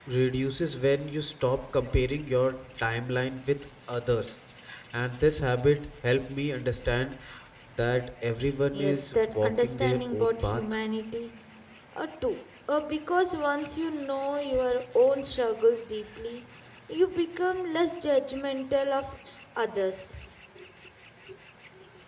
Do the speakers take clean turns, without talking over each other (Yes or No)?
No